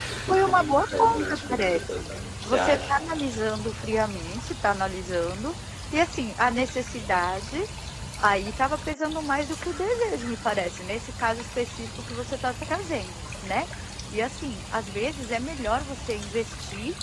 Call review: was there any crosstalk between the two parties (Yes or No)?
Yes